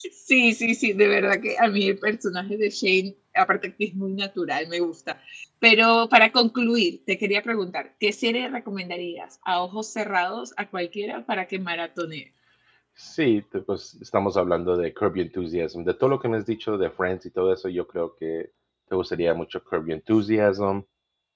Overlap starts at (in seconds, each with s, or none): none